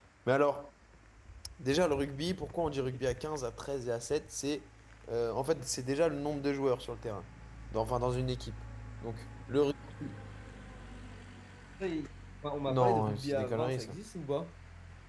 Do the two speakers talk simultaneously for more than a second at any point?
Yes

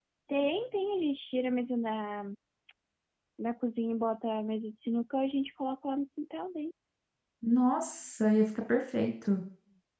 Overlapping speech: No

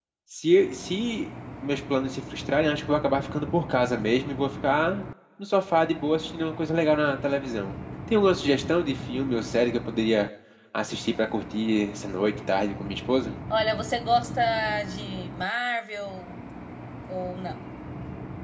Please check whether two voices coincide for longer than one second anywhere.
No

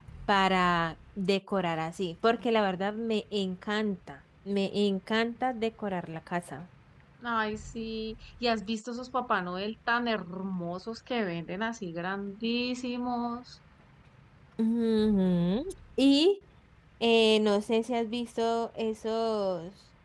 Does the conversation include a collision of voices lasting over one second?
No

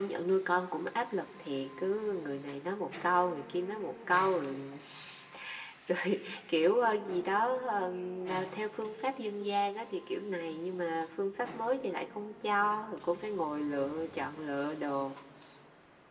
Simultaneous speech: No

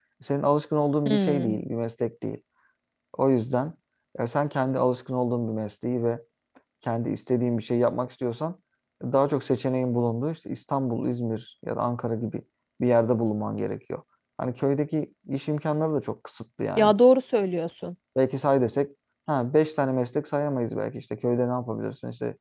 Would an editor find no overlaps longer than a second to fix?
Yes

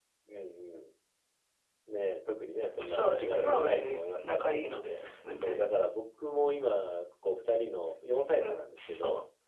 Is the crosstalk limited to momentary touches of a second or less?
No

